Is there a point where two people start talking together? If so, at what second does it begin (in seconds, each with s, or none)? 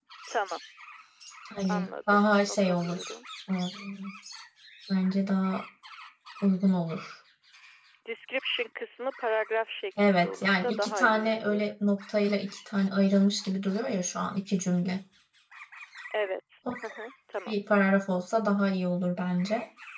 1.7 s